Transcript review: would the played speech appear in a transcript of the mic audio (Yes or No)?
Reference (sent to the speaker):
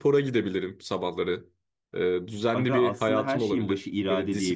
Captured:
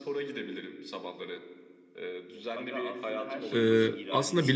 Yes